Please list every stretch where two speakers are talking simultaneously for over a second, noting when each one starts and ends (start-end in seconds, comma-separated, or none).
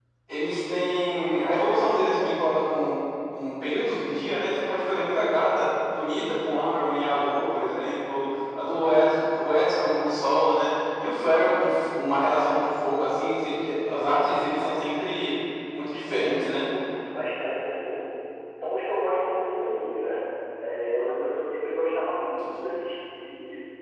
none